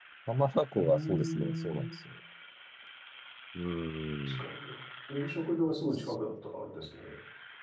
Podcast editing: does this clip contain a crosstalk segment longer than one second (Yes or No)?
Yes